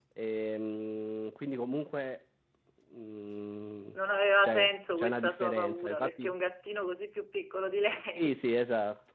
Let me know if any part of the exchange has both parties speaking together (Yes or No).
Yes